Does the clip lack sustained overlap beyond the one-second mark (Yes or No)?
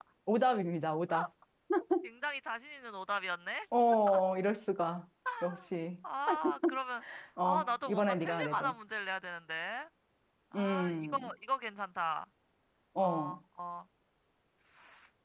No